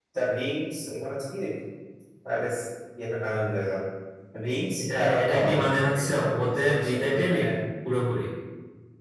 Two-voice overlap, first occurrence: 4.8 s

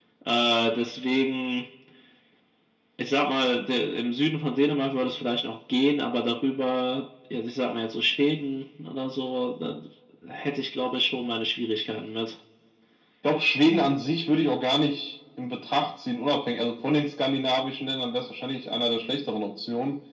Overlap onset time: none

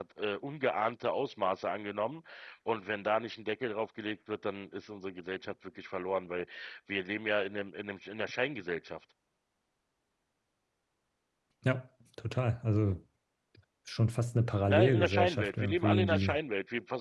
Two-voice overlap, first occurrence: 14.7 s

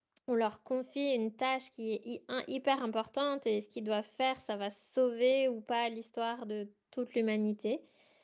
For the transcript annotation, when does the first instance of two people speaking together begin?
none

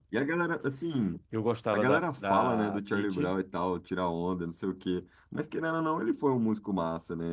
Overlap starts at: 1.7 s

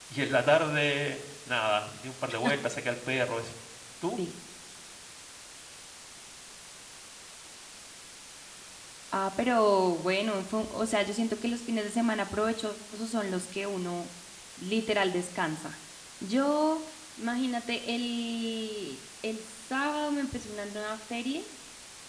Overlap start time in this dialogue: none

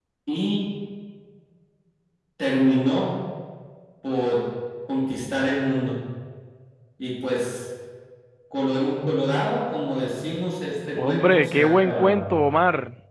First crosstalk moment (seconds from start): 11.0 s

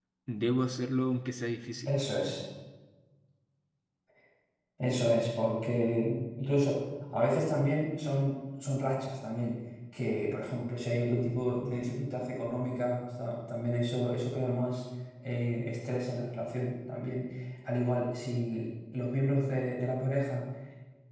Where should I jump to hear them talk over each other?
none

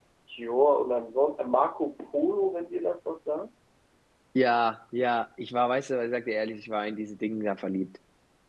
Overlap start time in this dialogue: none

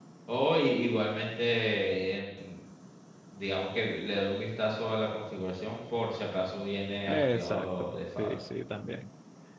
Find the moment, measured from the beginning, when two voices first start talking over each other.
7.1 s

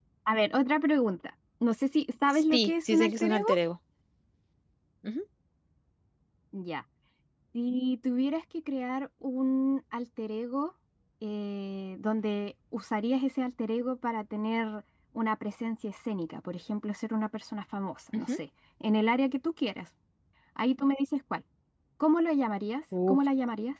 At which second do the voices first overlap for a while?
2.3 s

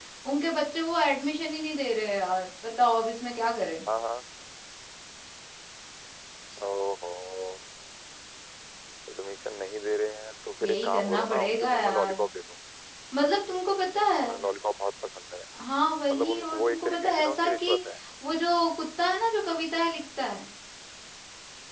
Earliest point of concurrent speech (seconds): 10.6 s

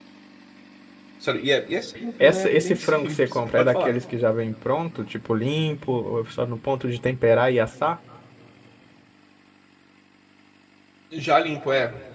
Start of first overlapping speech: 2.2 s

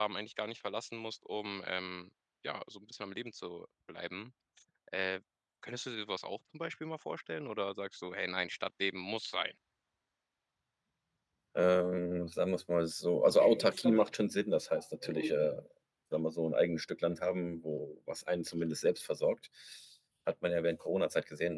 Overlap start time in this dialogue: none

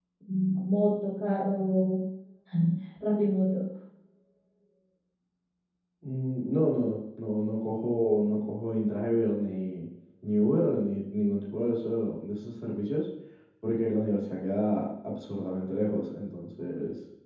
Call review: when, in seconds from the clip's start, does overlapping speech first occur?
none

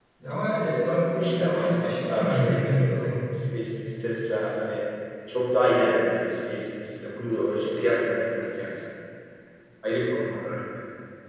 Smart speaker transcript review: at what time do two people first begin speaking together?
0.6 s

